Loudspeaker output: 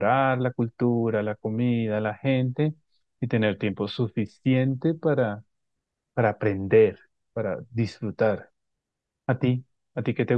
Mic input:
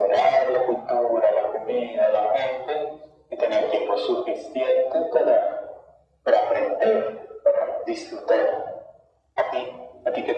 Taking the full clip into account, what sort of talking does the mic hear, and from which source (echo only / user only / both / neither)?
echo only